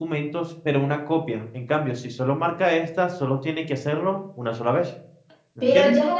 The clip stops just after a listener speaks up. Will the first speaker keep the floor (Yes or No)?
No